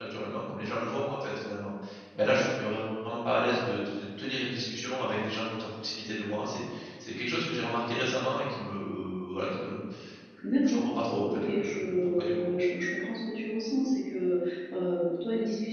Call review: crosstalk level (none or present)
present